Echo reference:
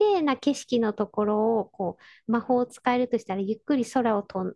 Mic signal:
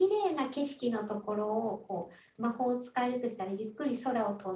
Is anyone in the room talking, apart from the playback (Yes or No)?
No